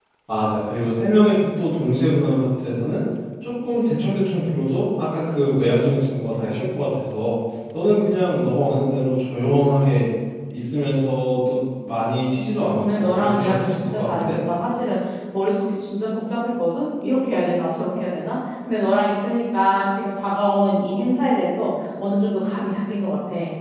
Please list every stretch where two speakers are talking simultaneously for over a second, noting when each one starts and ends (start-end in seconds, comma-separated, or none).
12.8-14.4